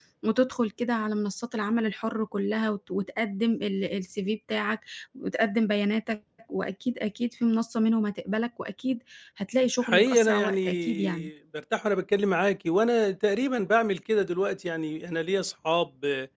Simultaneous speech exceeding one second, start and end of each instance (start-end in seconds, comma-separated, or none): 9.8-11.3